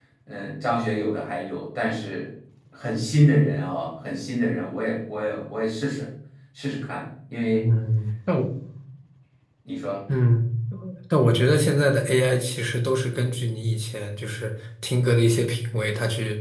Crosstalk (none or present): none